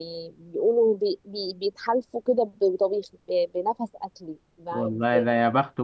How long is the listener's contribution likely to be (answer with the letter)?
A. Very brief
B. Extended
B